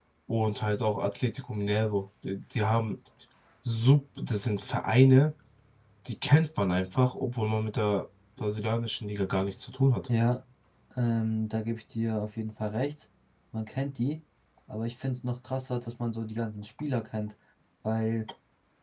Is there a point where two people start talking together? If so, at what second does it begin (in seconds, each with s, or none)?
none